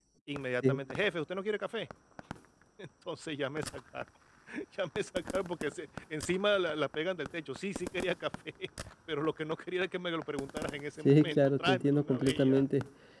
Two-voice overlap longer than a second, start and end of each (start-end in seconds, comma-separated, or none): 11.0-12.7